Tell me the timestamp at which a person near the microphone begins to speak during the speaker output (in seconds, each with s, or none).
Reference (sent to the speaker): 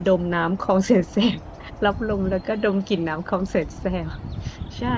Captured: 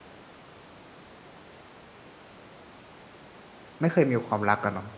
3.8 s